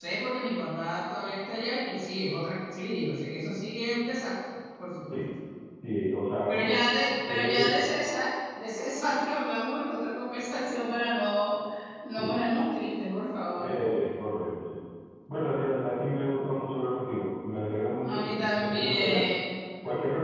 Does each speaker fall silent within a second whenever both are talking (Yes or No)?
No